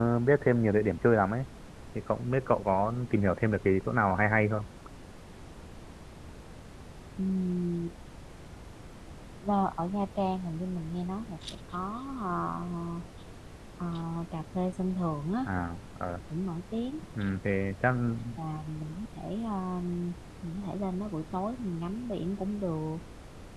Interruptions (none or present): none